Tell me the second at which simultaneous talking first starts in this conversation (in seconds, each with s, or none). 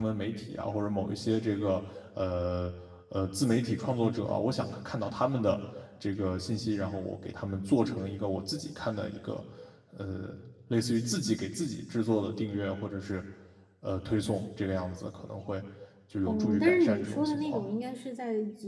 16.3 s